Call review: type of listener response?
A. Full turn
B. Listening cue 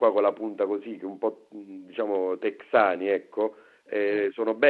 B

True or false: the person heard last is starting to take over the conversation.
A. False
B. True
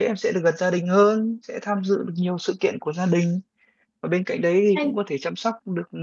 A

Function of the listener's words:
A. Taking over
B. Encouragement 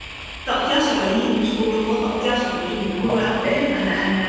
B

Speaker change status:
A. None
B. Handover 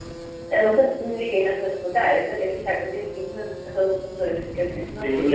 B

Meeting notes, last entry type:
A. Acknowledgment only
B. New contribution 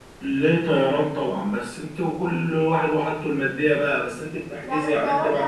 B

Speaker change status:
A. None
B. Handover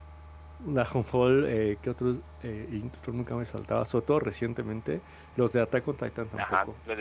B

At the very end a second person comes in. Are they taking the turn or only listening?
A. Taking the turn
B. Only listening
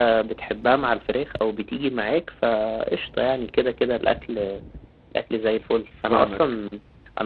B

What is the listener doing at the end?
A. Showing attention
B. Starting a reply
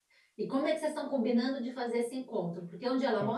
B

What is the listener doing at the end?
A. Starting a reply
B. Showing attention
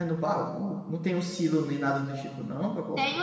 A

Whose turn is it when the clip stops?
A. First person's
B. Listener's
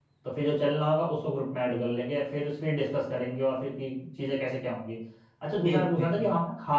A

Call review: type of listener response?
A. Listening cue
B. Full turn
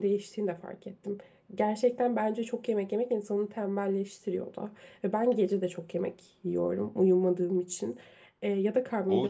B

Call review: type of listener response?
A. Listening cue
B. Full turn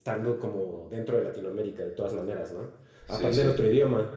A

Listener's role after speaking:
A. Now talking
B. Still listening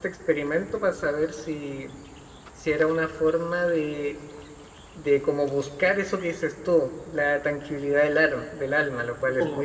A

